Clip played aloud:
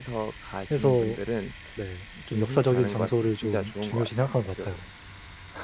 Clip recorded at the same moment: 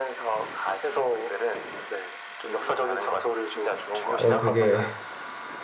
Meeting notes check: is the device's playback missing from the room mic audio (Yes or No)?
No